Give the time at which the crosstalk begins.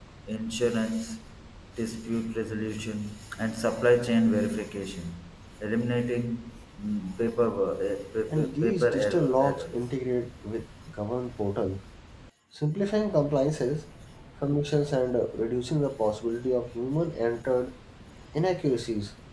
8.3 s

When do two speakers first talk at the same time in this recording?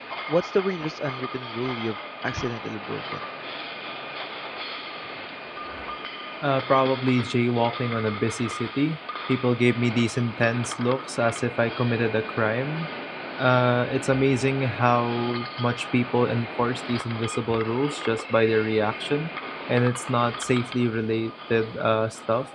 none

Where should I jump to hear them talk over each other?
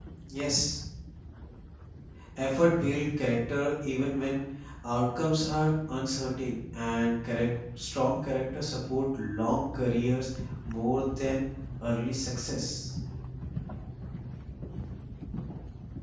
none

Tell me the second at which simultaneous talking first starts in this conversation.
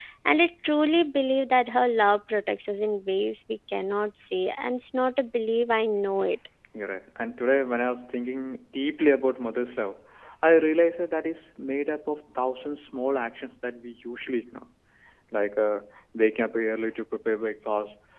none

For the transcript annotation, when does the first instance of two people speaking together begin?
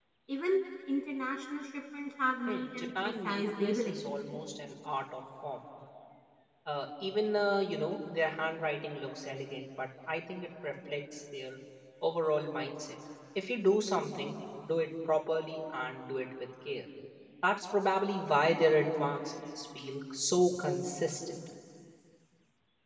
2.5 s

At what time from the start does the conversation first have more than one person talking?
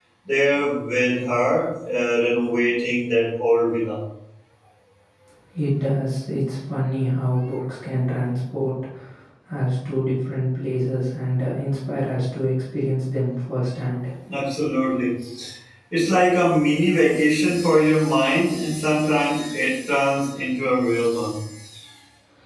none

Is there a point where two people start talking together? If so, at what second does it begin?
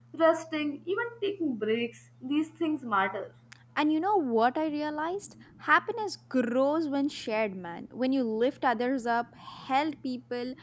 none

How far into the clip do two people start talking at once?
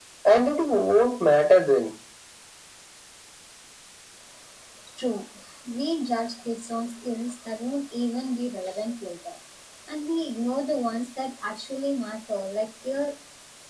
none

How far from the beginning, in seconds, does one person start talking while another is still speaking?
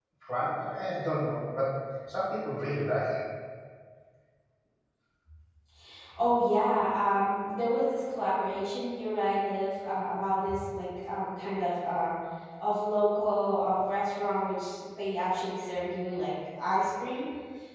none

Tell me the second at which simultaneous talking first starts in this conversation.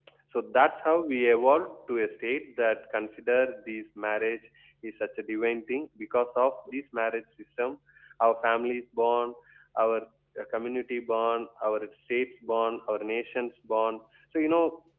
none

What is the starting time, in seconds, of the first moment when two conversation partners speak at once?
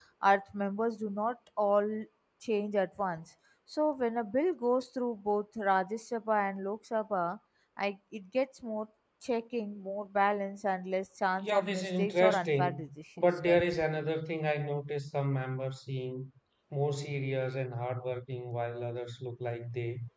11.4 s

